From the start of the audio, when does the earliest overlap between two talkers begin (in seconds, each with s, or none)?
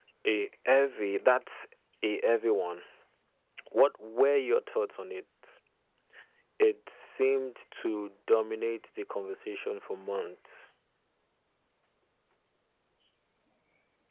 none